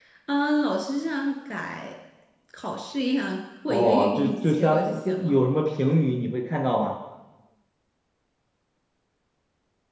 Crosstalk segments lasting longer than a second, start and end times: 3.7-5.4

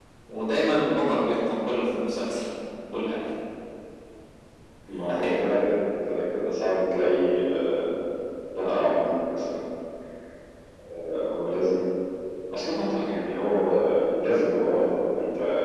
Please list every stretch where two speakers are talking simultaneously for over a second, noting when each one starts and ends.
none

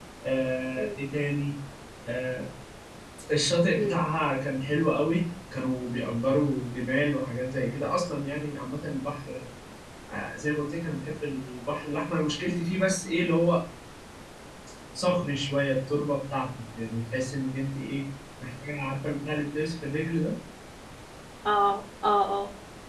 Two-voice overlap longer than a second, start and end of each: none

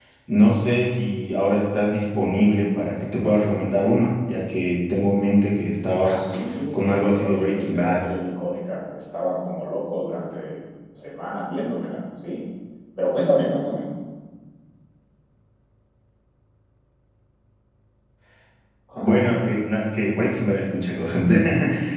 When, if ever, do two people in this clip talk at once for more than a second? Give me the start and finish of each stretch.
6.7-8.0

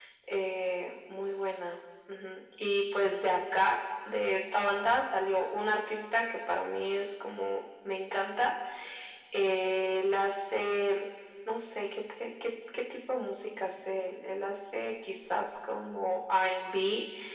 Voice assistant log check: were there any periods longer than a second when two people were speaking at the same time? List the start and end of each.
none

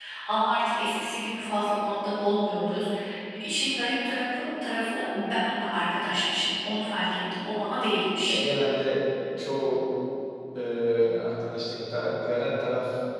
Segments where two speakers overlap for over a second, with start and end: none

